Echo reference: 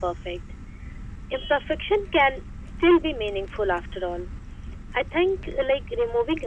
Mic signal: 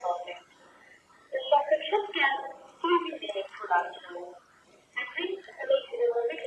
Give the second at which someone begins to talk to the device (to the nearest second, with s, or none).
none